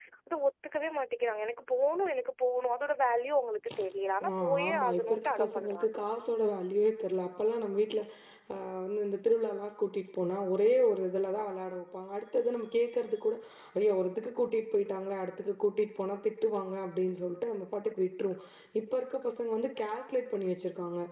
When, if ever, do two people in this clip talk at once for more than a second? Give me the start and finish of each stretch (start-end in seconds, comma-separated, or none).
4.3-5.9